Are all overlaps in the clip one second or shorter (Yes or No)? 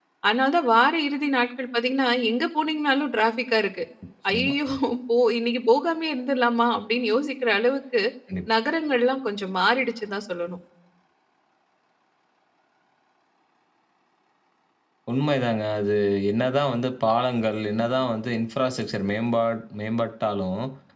Yes